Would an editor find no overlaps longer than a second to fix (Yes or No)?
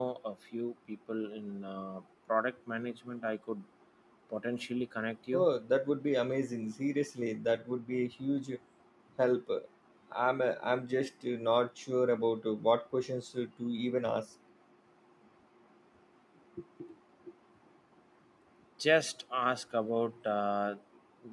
Yes